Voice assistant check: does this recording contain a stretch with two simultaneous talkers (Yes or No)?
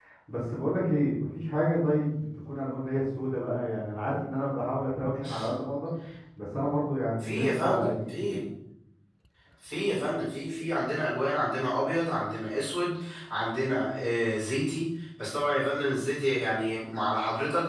Yes